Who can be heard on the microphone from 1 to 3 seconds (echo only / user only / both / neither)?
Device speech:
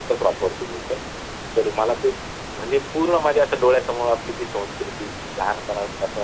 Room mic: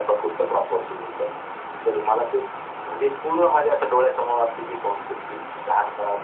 echo only